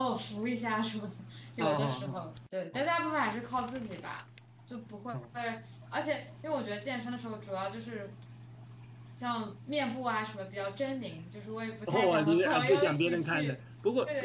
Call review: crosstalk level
present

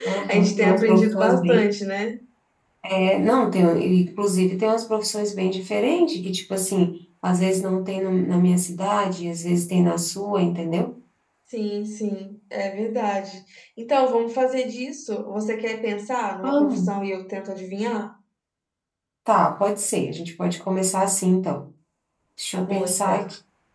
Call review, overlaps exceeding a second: present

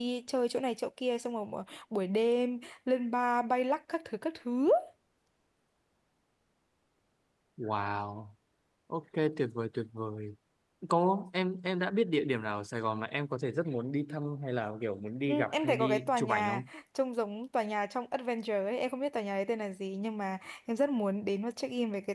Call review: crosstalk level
present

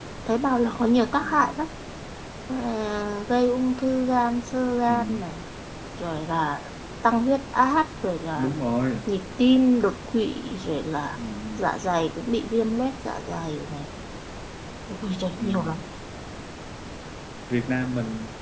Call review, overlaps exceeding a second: none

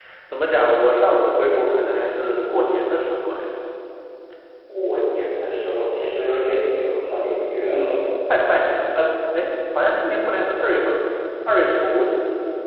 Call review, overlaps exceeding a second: none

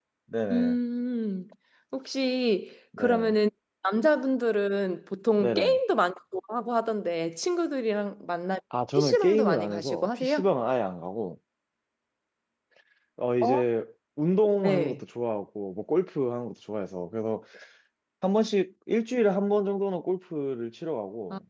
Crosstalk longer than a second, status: present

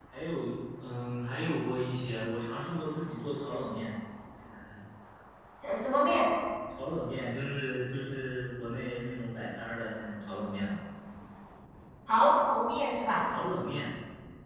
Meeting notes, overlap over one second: none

